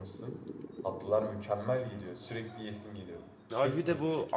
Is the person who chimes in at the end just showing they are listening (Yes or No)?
No